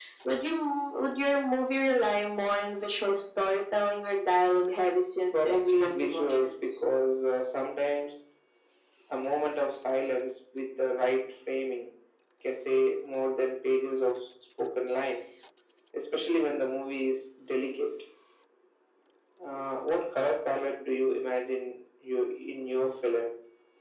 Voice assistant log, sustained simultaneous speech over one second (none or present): present